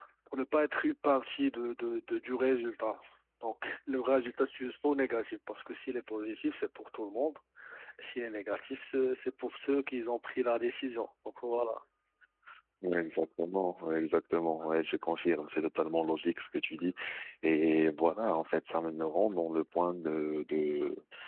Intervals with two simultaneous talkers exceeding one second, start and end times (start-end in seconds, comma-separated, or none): none